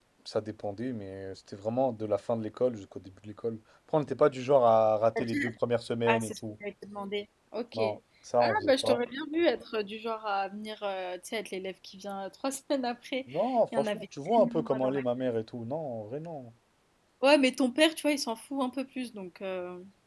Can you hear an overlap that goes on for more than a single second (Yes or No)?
Yes